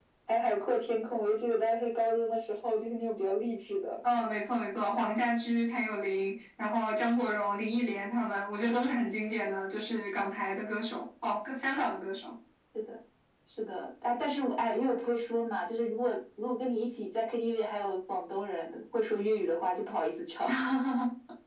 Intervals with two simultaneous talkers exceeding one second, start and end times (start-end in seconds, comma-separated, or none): none